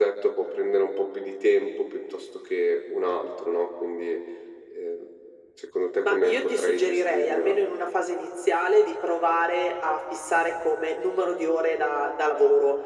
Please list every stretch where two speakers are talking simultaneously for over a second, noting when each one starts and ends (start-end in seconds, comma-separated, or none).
6.0-7.6